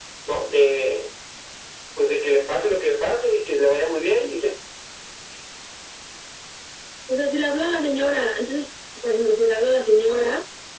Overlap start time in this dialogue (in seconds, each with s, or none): none